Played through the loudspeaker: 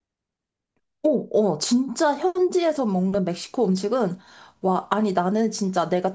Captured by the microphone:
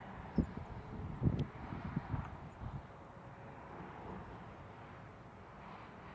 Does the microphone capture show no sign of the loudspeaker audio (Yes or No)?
Yes